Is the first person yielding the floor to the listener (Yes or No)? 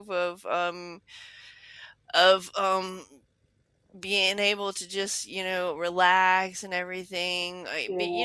No